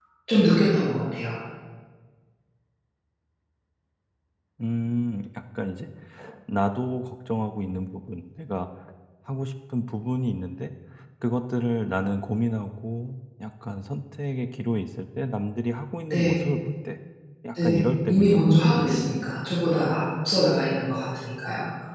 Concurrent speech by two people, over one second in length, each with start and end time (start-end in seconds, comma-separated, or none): 17.6-19.5